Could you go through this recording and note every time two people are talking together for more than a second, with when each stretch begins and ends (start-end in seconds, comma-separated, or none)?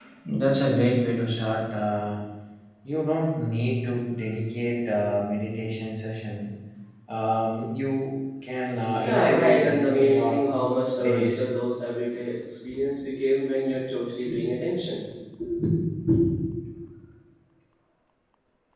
9.0-10.4